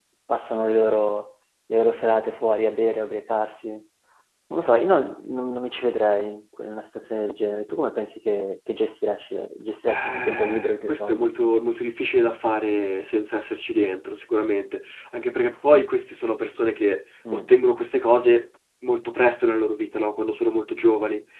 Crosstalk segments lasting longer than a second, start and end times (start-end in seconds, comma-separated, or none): 9.9-11.3